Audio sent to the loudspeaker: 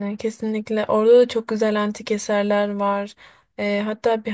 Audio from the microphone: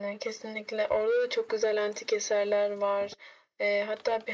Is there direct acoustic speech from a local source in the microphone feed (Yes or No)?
No